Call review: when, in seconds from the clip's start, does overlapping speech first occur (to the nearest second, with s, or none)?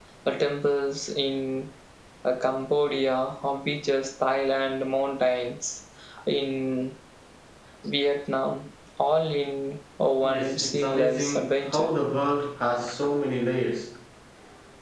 10 s